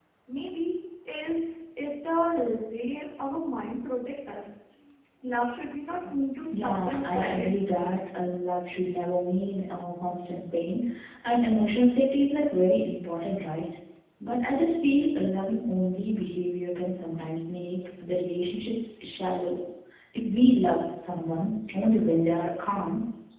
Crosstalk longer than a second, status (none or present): present